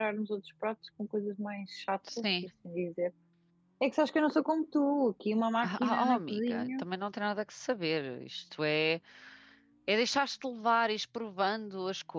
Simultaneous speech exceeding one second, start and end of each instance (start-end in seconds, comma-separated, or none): 5.6-6.8